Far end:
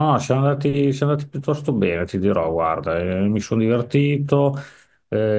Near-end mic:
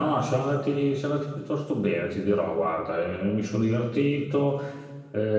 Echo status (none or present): present